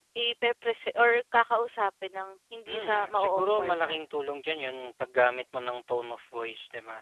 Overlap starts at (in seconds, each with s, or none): 2.7 s